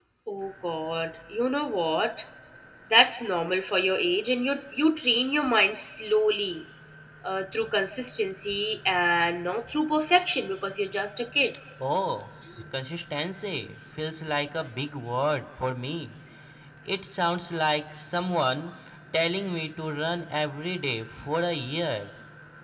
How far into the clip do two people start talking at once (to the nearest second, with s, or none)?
none